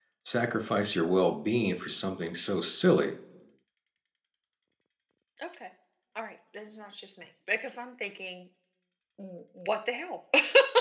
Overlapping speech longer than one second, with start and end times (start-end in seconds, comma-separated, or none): none